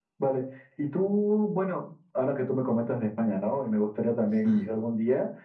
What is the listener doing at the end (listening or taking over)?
listening